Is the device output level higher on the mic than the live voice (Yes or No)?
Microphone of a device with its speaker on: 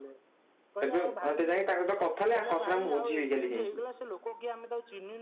No